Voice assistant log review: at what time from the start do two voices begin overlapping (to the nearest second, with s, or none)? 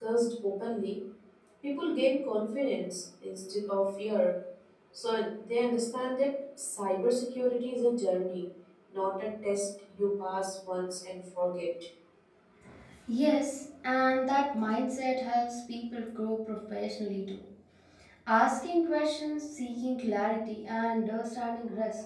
none